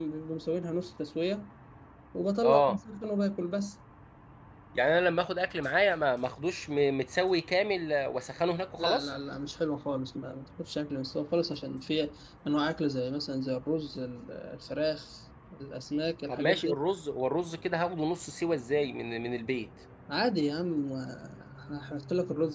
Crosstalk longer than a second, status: none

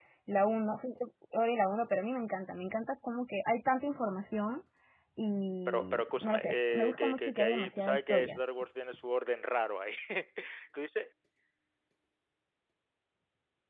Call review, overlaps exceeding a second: present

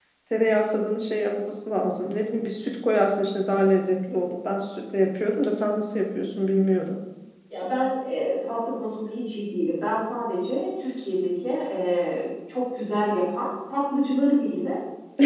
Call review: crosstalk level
none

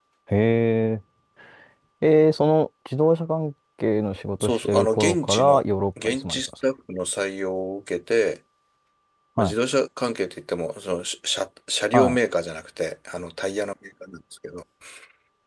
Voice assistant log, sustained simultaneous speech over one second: present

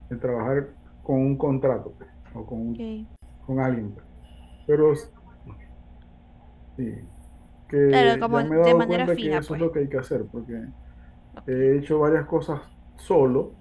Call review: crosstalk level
present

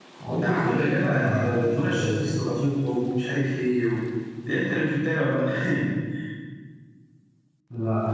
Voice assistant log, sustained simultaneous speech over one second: present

